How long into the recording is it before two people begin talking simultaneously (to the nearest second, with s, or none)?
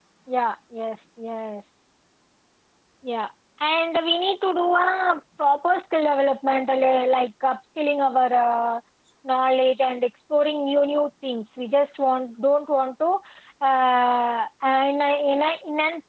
none